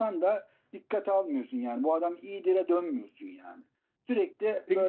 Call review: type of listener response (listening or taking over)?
listening